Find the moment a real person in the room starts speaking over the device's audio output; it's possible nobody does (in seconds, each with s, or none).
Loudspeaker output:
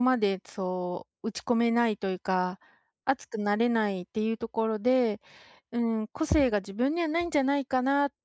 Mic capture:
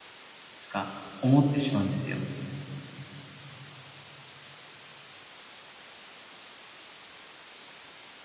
0.6 s